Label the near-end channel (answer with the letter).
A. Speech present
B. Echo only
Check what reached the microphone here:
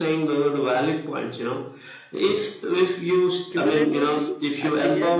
A